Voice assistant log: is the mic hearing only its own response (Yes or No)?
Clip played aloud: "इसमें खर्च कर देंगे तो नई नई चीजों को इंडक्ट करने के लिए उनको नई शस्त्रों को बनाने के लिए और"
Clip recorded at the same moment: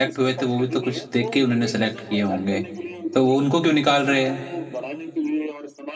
No